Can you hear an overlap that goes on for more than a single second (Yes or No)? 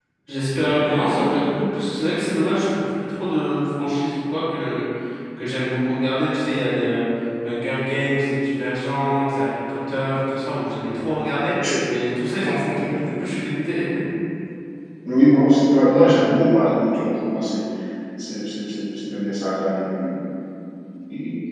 No